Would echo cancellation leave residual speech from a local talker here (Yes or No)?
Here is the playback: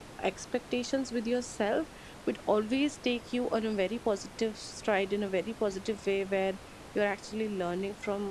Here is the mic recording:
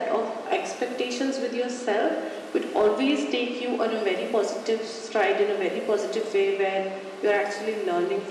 No